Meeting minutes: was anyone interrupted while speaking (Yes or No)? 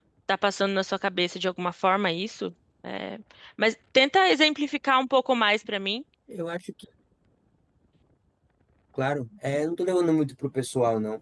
No